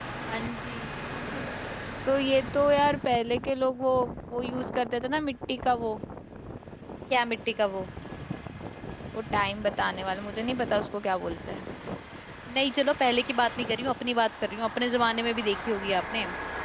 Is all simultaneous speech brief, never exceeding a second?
Yes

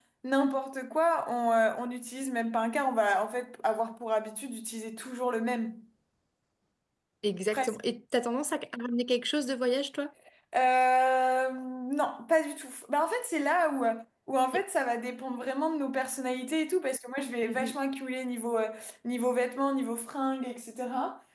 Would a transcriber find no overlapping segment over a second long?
Yes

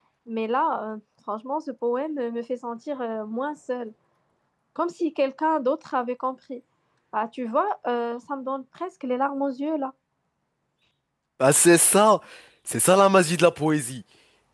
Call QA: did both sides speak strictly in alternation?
Yes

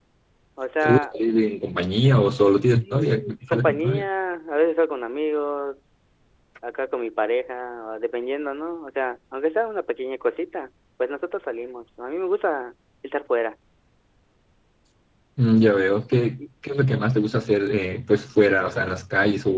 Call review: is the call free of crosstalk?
No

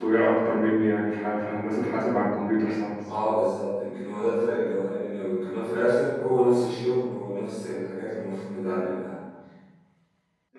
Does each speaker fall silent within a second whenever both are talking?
Yes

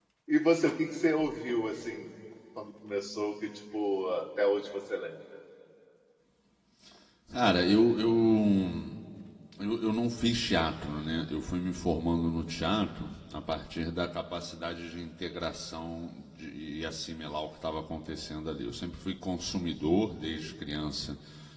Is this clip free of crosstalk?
Yes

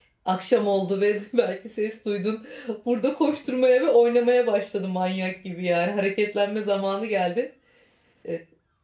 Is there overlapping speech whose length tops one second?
No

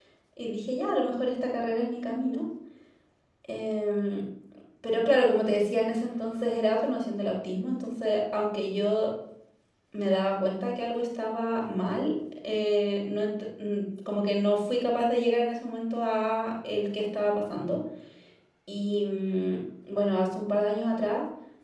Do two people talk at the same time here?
No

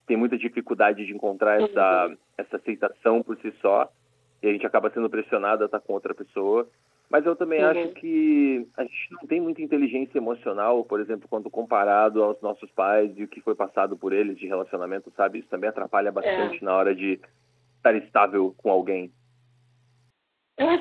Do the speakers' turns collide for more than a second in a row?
No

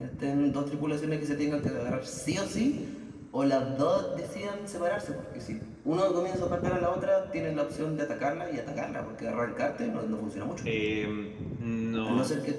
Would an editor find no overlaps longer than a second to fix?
Yes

